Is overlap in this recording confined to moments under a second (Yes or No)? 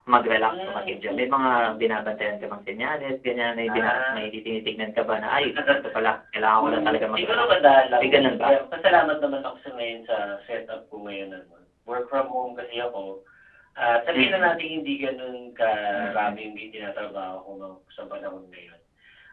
No